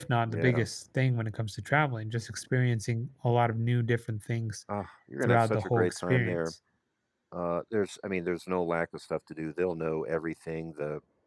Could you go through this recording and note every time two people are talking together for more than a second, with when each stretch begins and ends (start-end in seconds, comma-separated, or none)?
5.2-6.5